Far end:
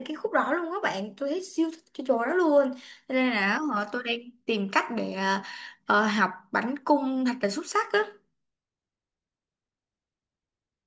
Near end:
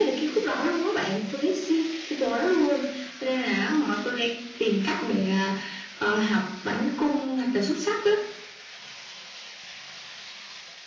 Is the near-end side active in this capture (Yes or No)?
No